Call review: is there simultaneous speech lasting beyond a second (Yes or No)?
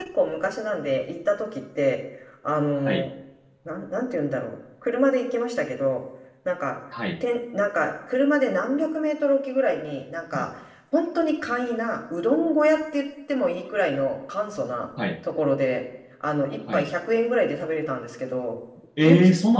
No